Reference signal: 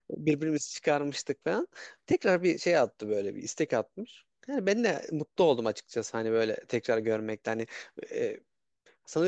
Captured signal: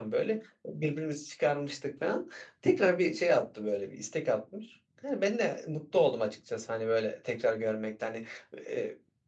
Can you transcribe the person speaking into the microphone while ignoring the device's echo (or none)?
none